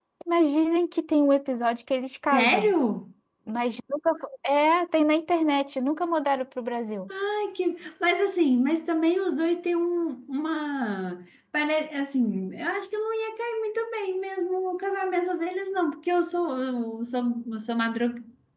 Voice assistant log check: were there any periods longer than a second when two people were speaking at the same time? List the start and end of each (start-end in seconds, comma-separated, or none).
none